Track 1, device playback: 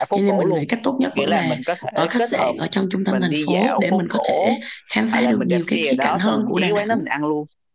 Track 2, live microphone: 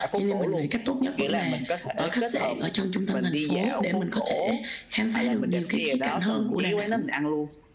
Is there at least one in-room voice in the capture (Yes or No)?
No